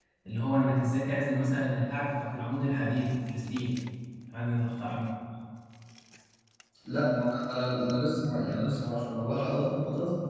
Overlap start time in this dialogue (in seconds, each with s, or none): none